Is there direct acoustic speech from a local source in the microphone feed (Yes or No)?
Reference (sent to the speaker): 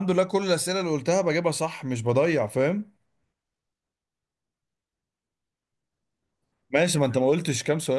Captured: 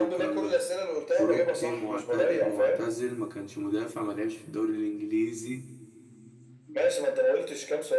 Yes